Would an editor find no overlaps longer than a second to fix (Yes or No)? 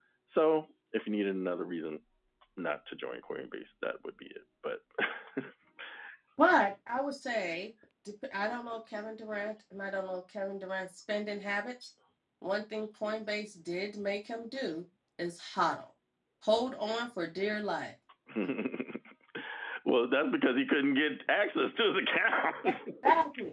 Yes